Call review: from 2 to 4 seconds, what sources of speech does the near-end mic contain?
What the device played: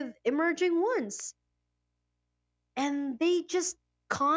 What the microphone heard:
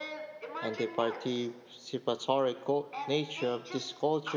both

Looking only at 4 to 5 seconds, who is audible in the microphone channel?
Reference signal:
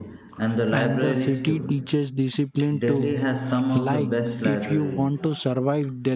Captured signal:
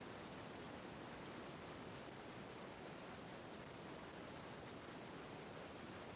neither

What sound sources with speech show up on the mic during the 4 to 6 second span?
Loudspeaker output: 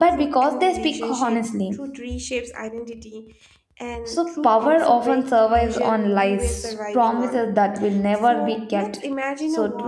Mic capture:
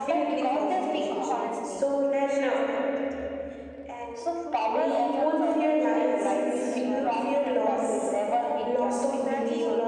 both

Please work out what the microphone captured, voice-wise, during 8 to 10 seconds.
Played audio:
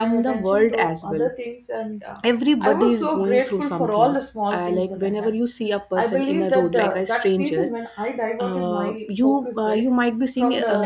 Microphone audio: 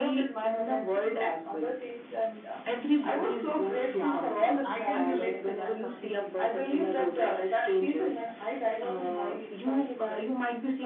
echo only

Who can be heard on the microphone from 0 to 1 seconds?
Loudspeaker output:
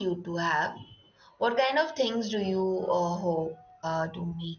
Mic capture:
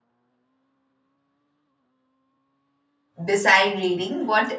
neither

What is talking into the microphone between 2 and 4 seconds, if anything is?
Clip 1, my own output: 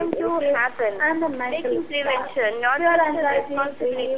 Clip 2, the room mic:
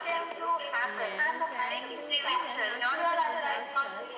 both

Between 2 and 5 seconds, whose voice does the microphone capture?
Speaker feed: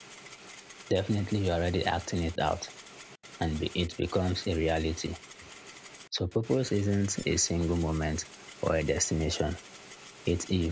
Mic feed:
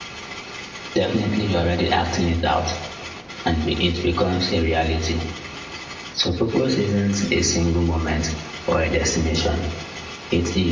echo only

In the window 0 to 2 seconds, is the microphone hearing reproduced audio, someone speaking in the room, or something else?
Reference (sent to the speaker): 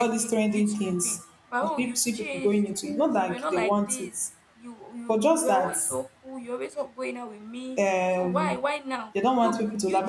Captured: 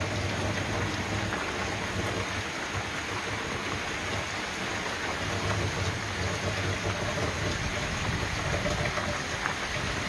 neither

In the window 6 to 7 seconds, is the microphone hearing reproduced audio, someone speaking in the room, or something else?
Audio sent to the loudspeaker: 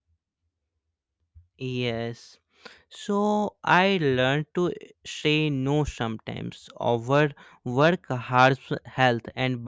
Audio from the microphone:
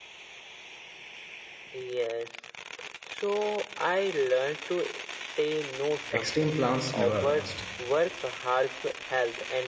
both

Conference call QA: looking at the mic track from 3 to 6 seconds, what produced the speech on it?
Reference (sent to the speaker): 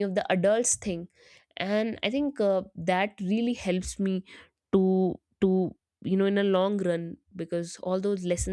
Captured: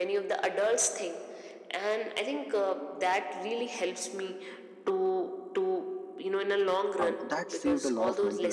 echo only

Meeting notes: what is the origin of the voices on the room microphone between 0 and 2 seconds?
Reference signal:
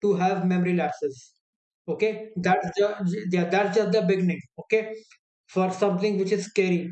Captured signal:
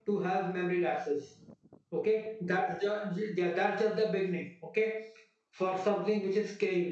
echo only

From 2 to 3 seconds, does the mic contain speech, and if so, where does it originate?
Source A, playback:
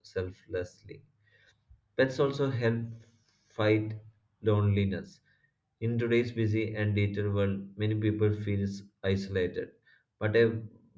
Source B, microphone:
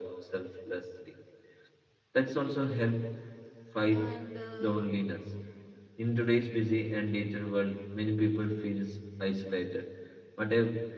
echo only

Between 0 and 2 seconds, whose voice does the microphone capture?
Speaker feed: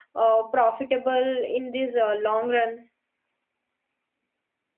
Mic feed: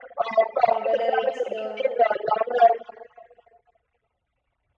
both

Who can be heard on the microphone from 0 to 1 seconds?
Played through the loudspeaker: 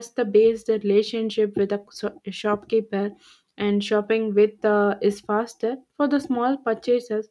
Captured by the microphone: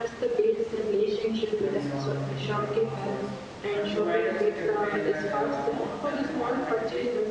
echo only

